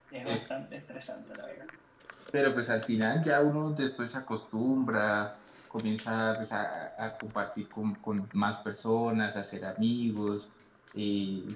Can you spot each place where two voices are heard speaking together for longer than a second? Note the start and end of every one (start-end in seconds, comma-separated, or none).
none